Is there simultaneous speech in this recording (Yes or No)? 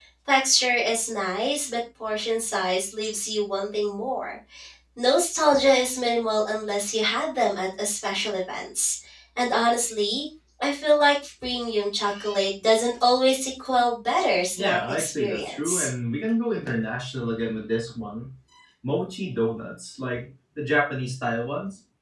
Yes